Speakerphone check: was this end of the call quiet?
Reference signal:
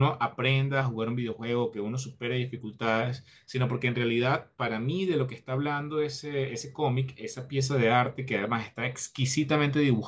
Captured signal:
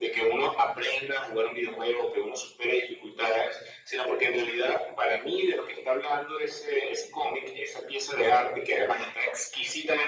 Yes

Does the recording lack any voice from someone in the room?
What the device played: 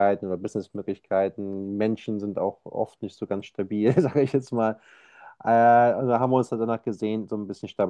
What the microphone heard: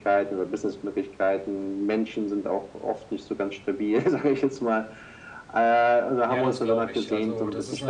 No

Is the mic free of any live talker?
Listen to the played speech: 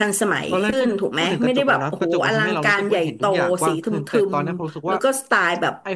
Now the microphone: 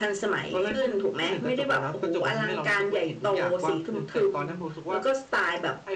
Yes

